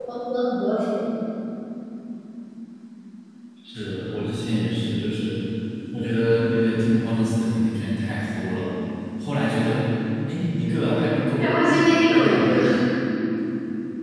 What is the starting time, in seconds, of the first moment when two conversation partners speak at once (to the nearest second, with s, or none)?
11 s